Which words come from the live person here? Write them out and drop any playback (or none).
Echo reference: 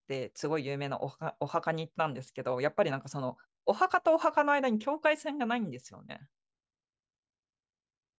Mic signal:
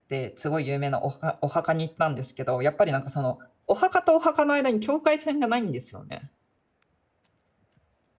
none